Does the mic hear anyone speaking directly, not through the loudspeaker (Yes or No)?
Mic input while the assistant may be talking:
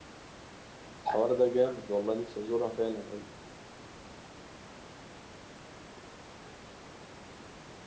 Yes